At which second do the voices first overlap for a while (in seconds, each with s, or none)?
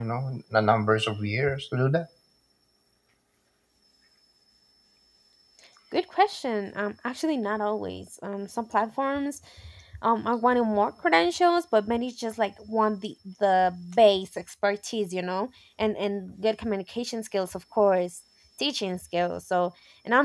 none